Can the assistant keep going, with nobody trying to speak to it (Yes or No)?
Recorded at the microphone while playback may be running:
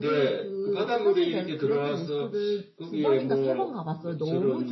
No